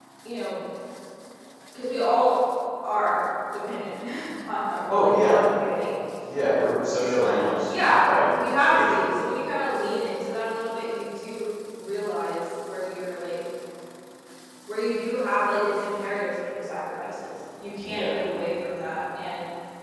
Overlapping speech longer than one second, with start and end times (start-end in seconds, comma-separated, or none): none